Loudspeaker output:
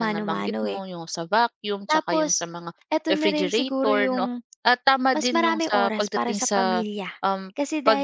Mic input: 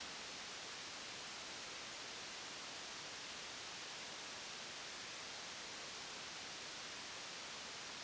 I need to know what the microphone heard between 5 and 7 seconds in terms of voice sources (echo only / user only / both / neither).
neither